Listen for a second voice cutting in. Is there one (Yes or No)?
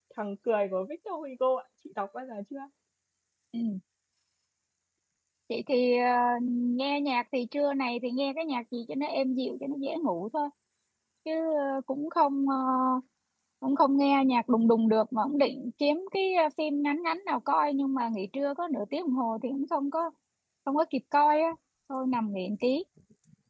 No